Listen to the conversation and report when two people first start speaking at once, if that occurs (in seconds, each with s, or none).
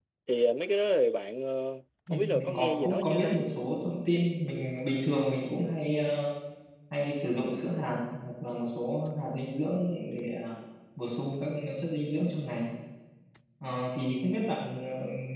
2.1 s